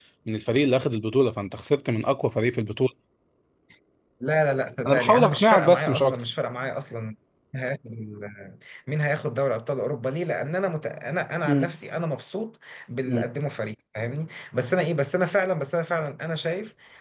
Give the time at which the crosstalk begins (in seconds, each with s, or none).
4.9 s